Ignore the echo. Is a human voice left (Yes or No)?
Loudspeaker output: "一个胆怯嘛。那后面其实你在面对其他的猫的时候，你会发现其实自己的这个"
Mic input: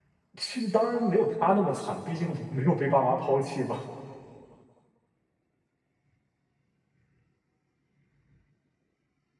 Yes